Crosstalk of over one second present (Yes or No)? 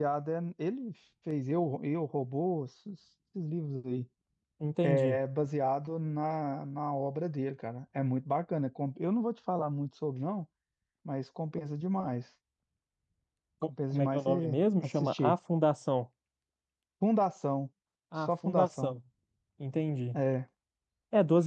Yes